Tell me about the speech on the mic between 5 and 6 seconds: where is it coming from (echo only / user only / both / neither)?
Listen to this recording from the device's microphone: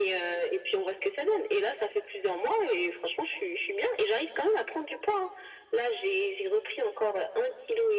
echo only